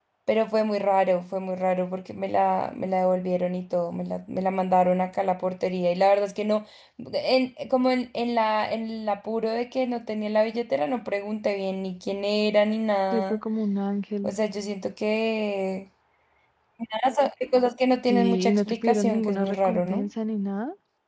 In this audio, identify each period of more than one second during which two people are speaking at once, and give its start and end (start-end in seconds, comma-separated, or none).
18.1-20.1